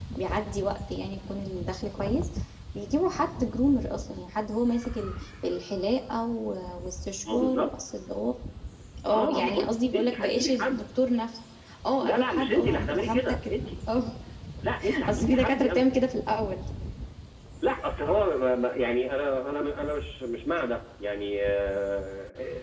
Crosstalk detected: Yes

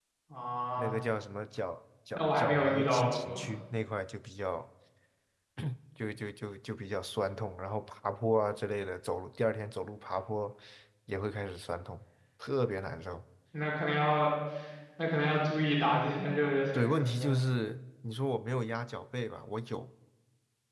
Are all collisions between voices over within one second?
No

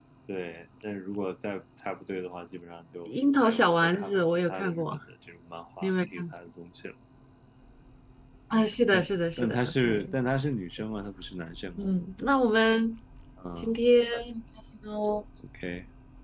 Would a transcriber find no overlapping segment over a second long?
No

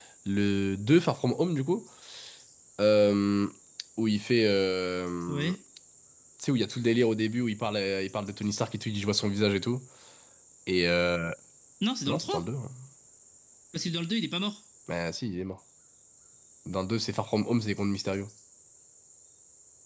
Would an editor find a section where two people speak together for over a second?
No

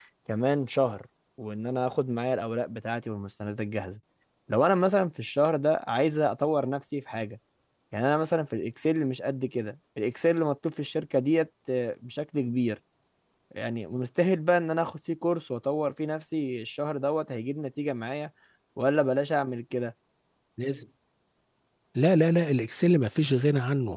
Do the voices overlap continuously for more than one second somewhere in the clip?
No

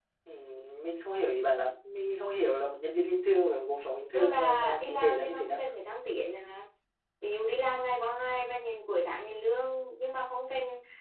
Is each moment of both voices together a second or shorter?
No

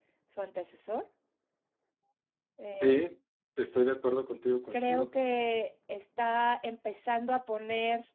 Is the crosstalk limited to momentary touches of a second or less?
Yes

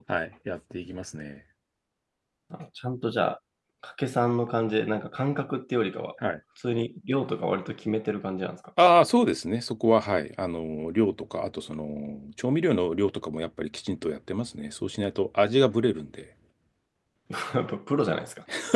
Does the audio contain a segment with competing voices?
No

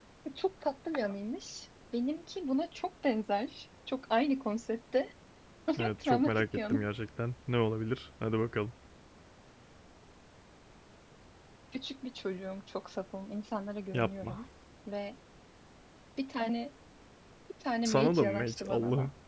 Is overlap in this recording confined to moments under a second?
No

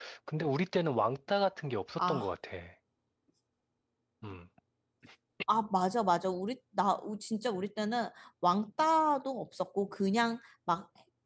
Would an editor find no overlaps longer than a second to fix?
Yes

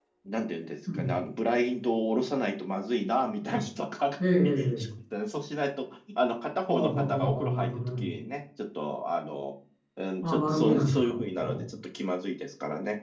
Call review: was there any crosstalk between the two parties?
Yes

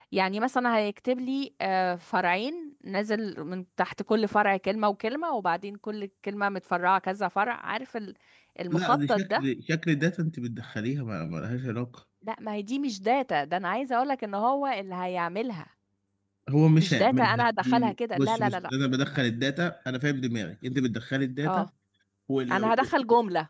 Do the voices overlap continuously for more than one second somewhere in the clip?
Yes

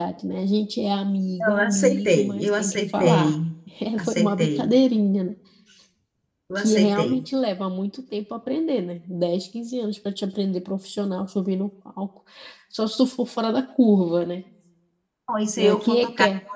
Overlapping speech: Yes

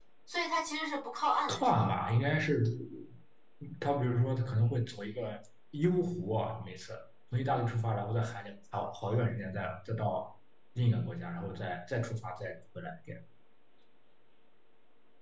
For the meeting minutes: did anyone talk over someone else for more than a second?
No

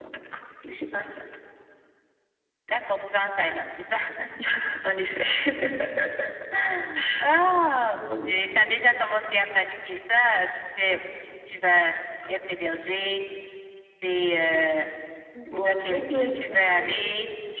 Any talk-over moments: Yes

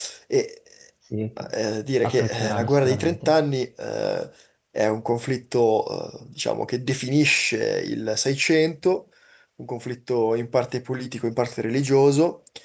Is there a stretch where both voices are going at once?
Yes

